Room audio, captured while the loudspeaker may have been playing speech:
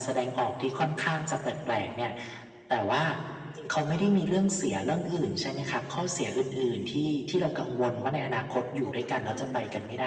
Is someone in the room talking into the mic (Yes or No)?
Yes